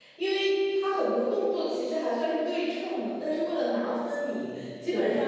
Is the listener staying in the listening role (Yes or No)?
Yes